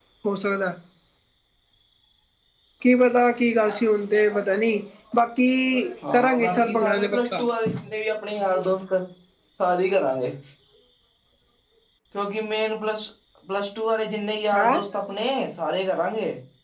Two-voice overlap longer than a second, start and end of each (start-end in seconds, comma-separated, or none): 6.1-7.4